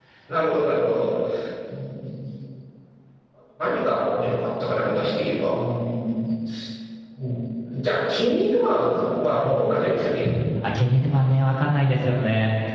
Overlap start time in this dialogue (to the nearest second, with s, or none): none